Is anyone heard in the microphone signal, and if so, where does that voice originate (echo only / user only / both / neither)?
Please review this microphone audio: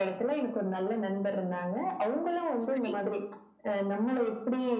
both